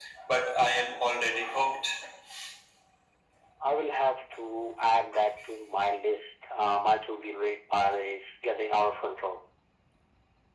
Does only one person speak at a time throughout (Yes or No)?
Yes